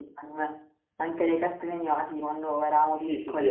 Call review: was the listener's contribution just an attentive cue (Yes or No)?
No